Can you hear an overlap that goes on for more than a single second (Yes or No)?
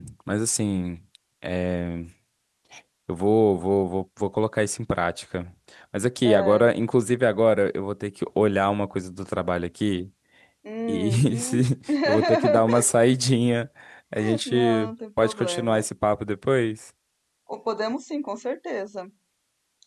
Yes